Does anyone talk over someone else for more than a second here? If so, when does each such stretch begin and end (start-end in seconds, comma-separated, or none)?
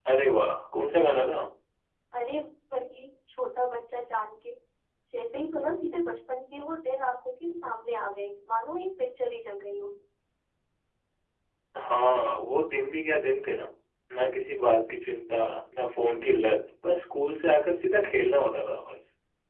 none